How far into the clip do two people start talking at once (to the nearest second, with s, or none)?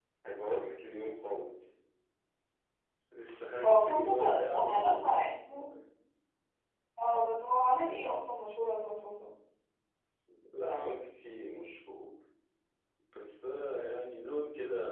4 s